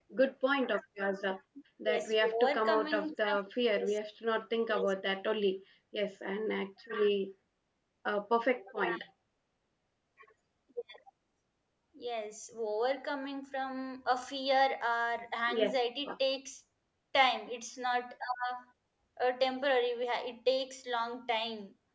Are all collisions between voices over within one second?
No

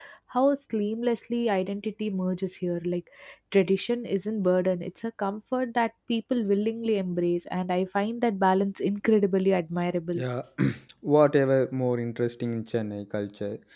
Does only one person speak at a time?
Yes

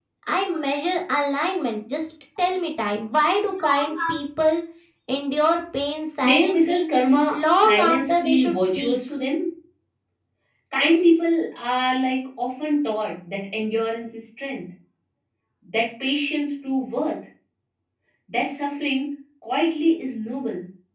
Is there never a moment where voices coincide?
No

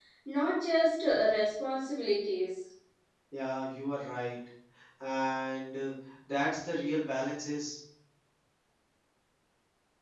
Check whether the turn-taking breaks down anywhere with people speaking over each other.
No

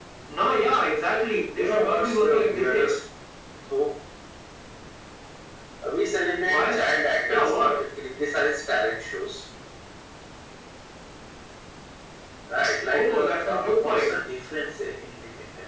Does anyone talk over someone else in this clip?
Yes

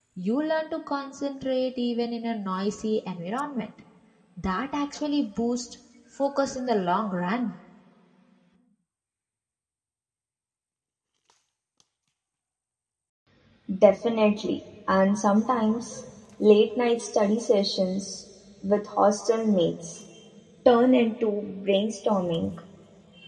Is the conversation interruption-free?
Yes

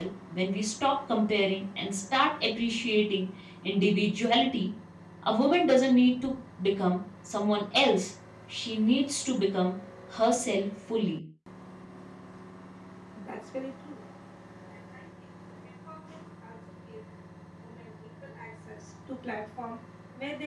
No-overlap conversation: Yes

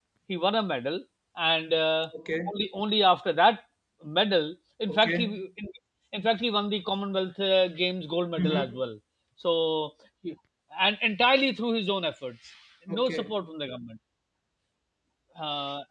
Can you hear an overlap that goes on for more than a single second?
No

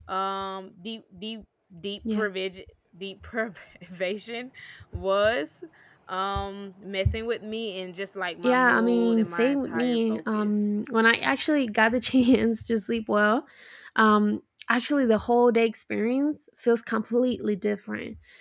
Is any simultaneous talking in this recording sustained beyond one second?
Yes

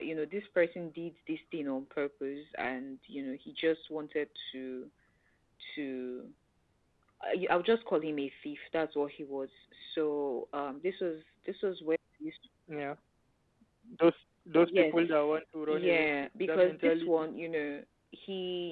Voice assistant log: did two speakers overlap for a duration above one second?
Yes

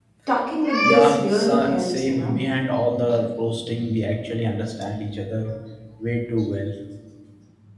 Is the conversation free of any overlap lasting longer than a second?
No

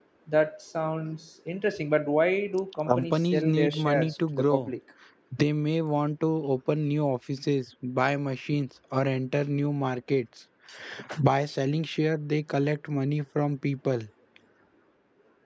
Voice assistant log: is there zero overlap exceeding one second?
No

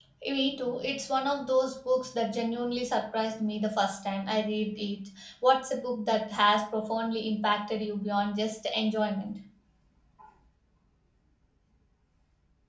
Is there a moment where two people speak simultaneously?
No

